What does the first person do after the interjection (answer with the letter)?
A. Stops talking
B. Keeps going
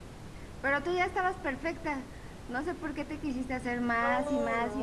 A